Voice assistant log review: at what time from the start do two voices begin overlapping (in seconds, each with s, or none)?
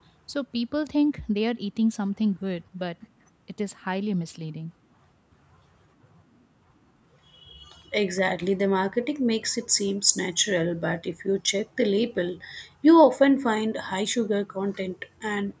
none